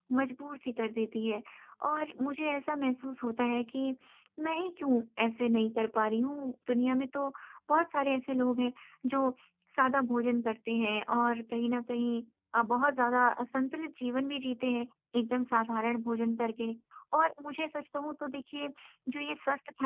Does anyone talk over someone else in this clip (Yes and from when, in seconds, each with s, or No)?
No